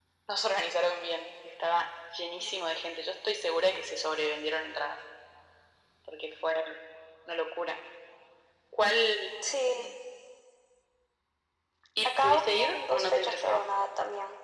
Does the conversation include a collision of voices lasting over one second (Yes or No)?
Yes